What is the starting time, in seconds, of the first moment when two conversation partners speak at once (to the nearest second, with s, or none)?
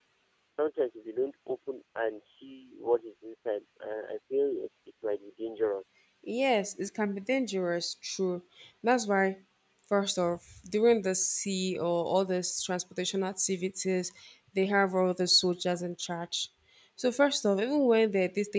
none